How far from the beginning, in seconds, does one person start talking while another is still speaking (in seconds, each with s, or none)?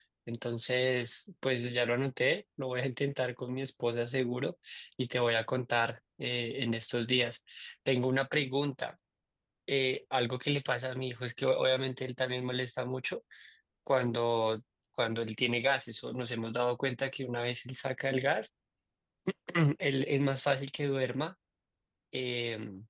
none